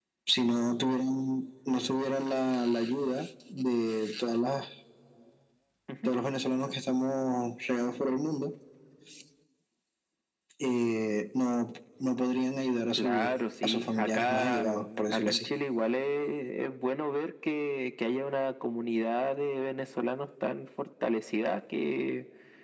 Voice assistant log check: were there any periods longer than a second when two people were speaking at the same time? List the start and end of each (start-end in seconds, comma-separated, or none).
13.0-15.5